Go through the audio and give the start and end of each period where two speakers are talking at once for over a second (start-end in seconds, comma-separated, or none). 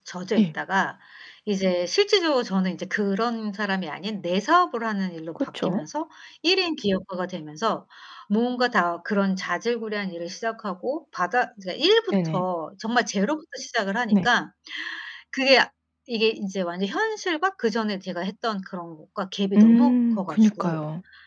19.6-20.8